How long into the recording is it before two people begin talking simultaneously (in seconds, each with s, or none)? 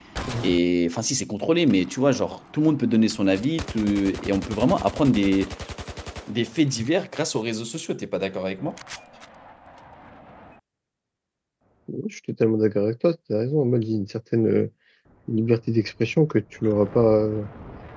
none